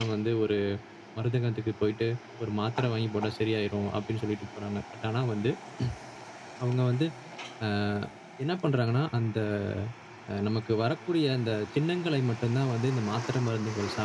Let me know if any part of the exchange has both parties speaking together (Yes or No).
No